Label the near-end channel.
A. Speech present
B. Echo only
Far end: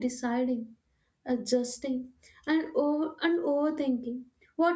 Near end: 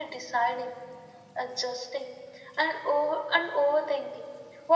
B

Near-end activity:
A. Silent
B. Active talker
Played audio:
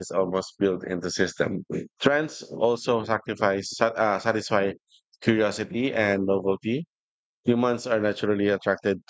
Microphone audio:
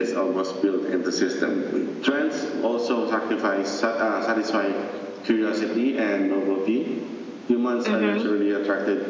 B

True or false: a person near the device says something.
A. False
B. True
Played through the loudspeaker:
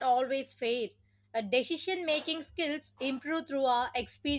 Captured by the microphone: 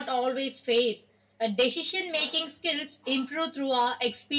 A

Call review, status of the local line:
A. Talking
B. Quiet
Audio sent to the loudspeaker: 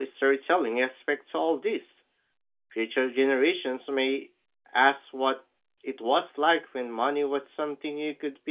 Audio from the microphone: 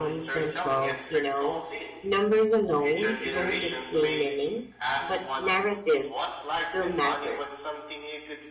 A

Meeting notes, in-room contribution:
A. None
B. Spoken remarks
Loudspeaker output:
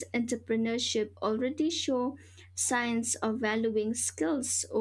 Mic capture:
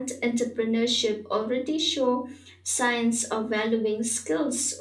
A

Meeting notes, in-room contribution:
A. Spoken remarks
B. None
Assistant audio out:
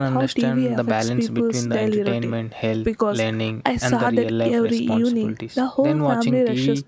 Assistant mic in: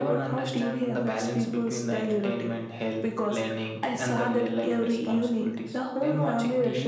B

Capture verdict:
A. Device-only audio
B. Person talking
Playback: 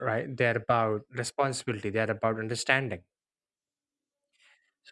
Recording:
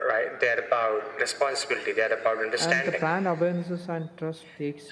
B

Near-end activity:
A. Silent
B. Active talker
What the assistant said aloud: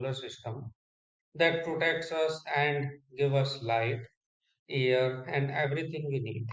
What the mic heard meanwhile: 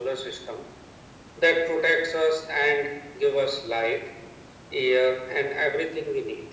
A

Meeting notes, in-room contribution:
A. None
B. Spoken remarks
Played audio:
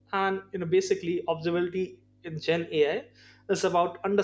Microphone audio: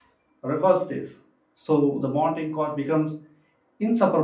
B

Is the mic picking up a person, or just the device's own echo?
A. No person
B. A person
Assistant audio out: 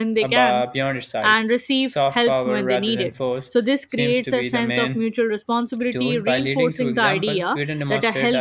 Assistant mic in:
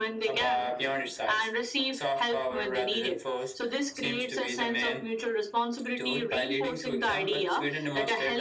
A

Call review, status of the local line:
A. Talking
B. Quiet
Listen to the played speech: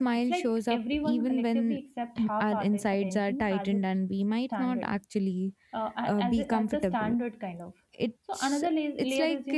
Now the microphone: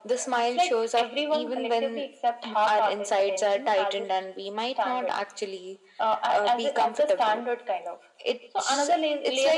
B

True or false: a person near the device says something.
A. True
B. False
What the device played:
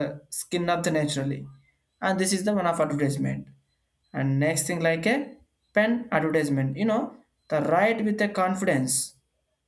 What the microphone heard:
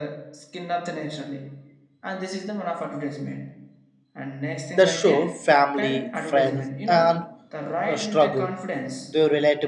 A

